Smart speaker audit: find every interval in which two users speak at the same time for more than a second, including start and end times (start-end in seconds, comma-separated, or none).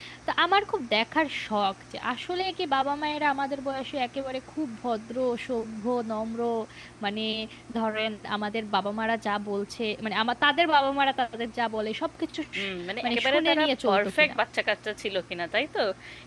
12.6-14.3